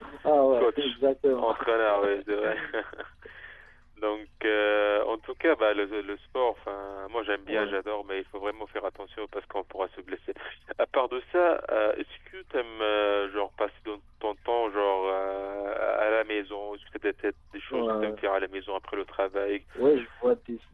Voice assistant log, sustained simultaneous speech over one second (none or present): none